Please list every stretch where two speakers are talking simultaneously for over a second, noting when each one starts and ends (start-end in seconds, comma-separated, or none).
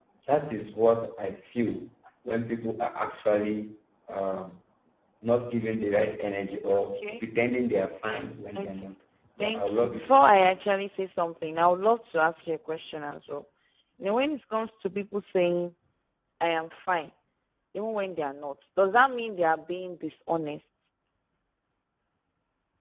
9.4-10.6